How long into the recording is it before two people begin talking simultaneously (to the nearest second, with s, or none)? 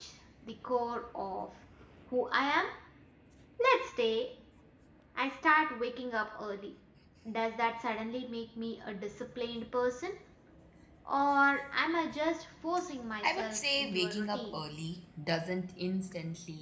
13 s